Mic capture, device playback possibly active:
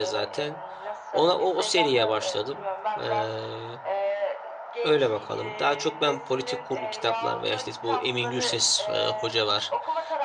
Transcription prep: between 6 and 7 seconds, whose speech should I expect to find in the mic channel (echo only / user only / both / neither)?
both